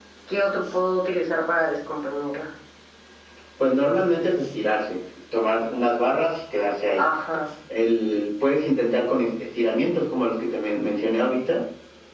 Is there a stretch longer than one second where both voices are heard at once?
No

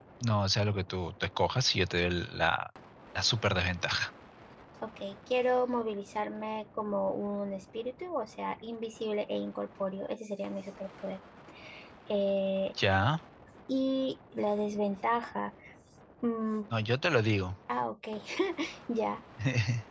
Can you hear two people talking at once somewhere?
No

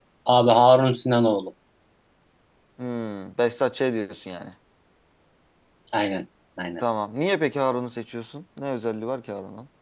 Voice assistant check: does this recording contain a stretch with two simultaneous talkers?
No

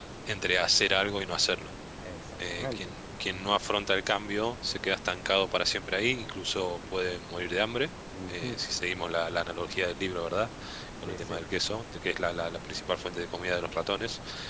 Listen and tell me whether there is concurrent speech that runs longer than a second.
No

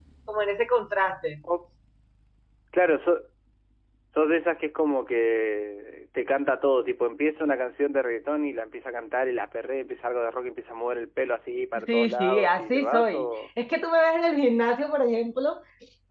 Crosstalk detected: Yes, from 11.8 s

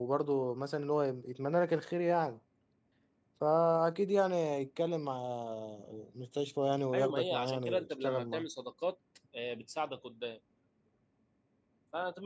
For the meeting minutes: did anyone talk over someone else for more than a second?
Yes, from 6.9 s

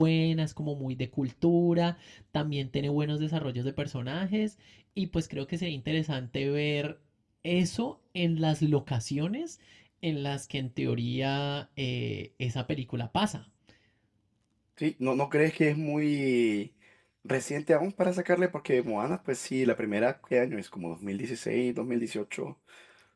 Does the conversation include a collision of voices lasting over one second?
No

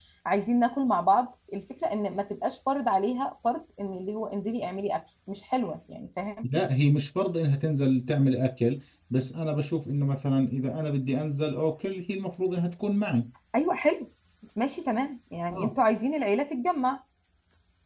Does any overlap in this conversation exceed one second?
No

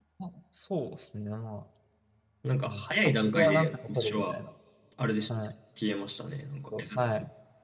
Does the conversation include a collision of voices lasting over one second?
Yes, from 2.6 s

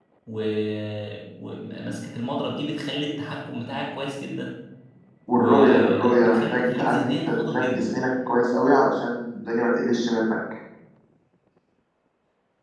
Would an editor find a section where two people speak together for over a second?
Yes, from 5.3 s

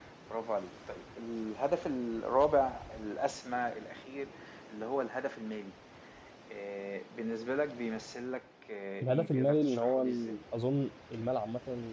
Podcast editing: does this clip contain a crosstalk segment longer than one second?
Yes, from 9.0 s

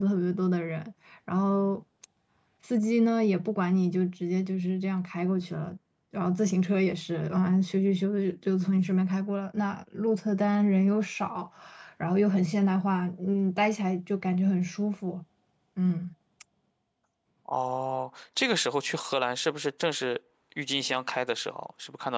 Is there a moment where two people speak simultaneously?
No

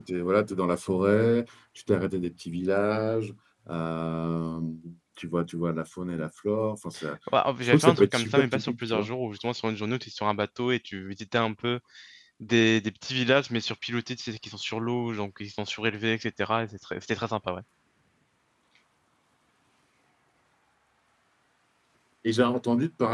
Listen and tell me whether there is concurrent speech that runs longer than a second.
Yes, from 7.6 s

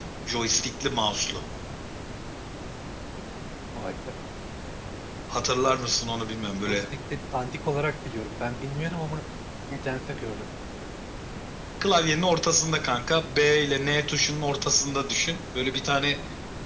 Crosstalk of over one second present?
No

